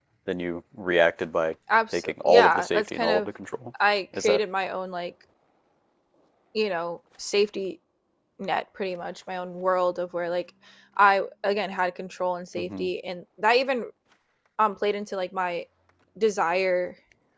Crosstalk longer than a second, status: present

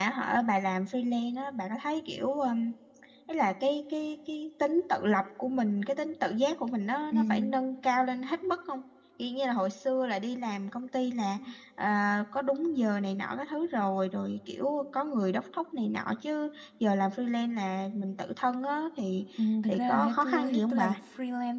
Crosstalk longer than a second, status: present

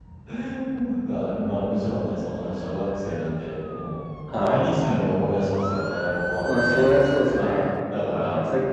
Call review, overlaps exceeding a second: none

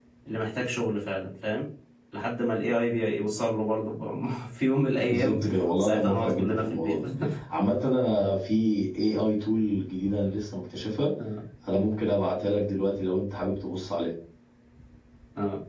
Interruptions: present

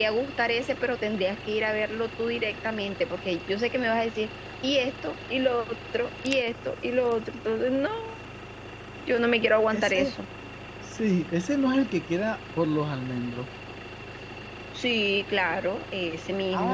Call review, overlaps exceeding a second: none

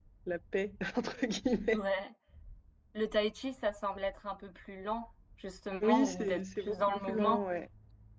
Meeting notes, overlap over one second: present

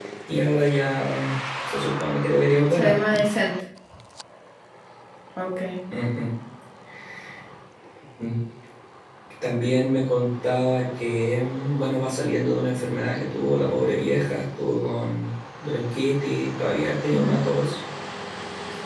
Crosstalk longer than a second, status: none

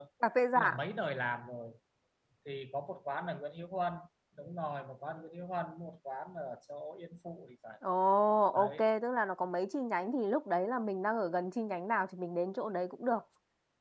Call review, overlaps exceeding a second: none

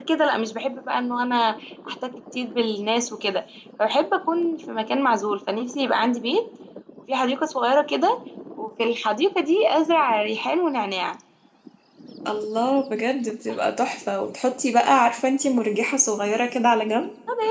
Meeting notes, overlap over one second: none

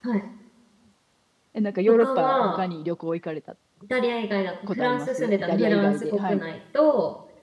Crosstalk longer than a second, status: present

